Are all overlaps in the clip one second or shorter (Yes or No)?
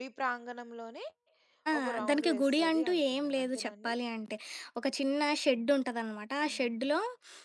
No